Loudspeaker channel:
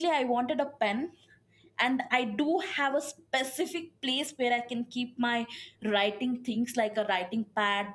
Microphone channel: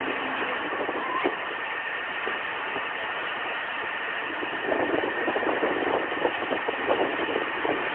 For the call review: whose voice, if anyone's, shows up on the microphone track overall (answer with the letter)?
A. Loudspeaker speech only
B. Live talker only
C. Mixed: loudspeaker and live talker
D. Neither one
D